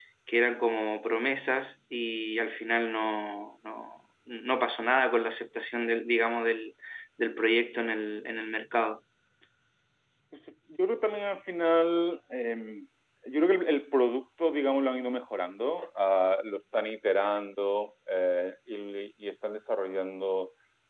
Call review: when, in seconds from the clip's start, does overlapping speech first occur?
none

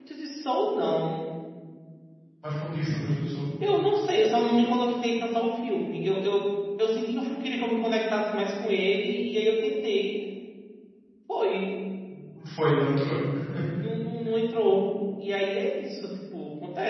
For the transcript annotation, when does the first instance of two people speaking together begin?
none

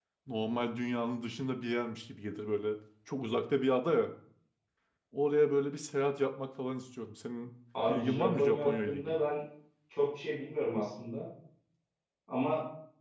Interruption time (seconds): 8 s

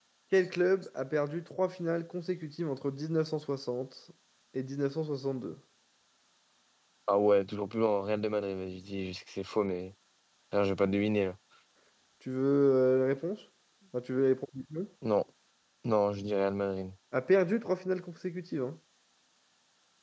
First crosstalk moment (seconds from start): none

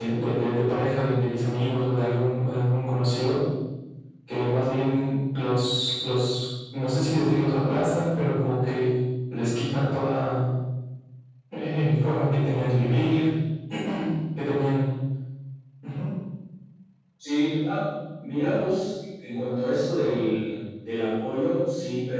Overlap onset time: none

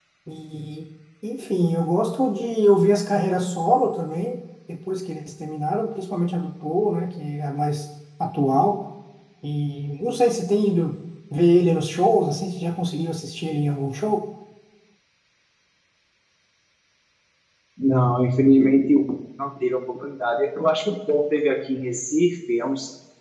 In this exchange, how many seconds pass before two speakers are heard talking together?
none

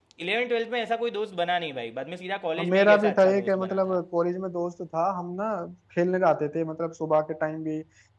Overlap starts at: 3 s

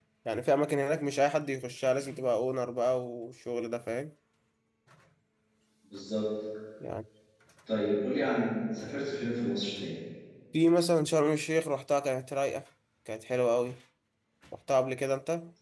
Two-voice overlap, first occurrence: none

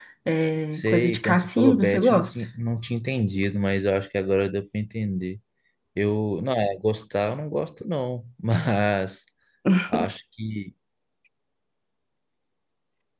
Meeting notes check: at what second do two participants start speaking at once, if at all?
1 s

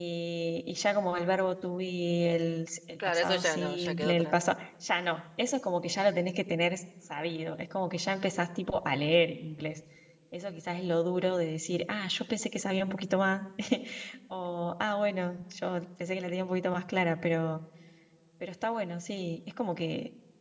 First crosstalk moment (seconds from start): 3 s

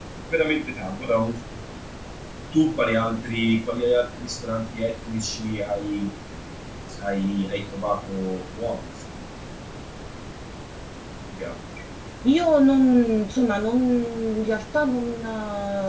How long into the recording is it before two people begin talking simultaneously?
none

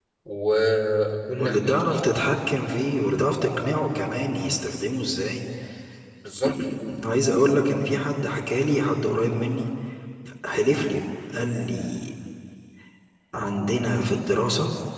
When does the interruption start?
1 s

